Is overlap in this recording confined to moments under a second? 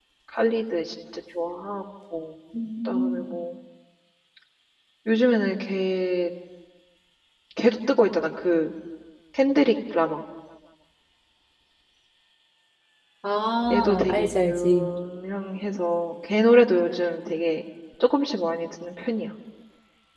No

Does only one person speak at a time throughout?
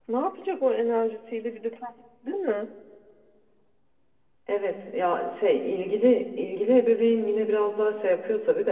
Yes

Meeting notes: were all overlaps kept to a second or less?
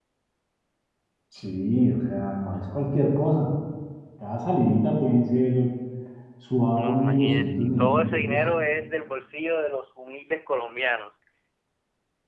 No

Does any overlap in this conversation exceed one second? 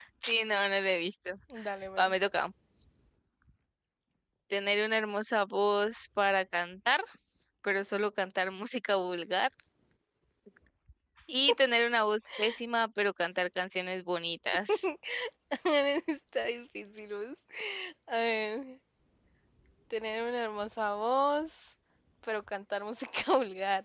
No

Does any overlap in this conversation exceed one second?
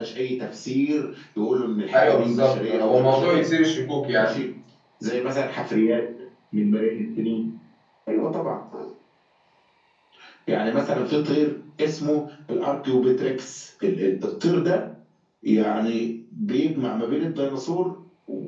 Yes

